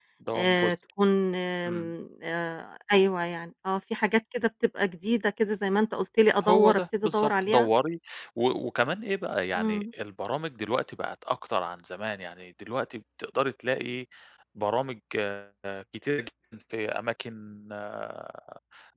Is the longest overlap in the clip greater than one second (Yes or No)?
Yes